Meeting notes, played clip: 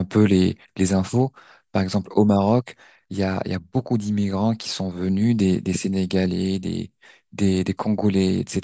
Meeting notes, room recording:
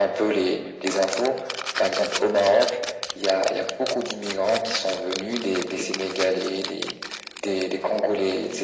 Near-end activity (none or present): none